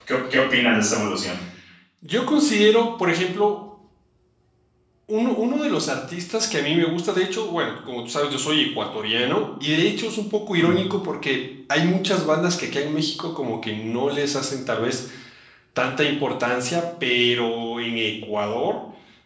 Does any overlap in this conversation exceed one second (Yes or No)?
No